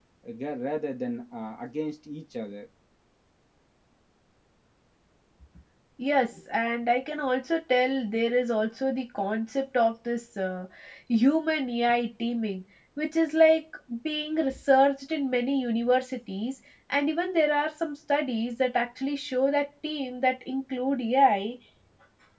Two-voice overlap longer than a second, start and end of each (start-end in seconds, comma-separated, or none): none